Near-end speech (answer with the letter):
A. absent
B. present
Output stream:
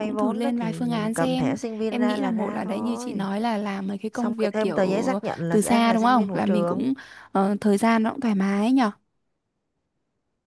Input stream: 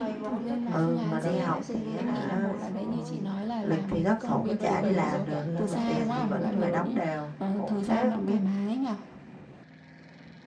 B